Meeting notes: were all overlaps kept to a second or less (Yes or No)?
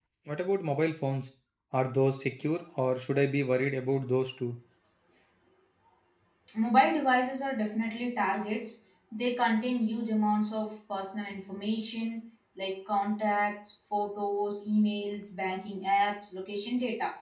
Yes